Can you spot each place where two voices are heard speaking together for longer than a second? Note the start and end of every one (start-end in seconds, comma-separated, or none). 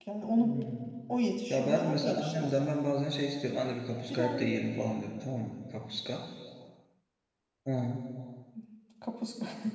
1.5-2.7